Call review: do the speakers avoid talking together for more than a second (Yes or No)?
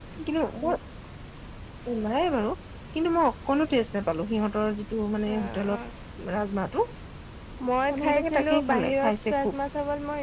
No